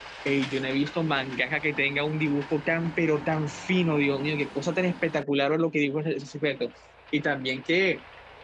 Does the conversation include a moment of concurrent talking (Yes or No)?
No